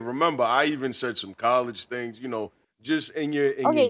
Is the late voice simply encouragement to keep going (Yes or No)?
No